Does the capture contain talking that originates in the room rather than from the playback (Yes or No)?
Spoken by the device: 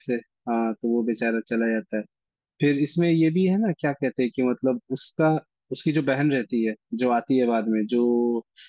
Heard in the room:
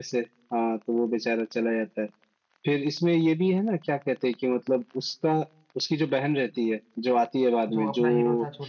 Yes